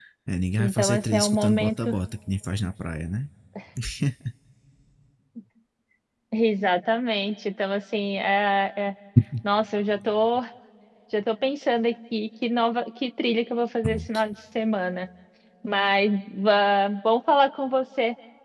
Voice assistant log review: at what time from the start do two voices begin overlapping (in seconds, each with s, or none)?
0.6 s